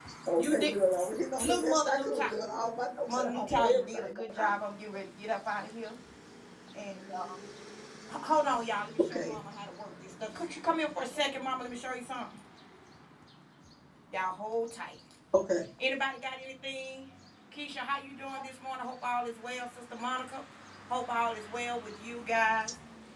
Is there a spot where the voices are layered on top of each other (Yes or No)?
Yes